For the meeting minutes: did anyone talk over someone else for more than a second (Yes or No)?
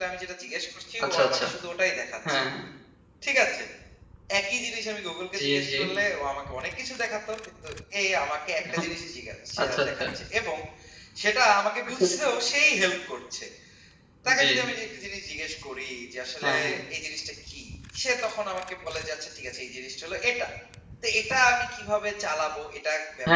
No